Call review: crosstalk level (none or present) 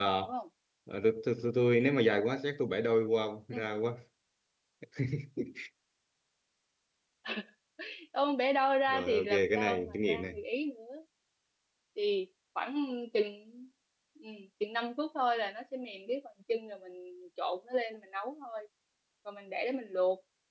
present